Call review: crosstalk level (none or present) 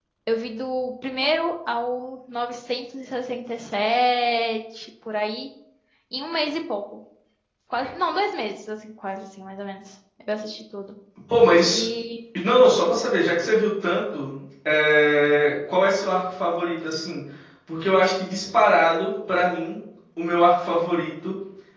none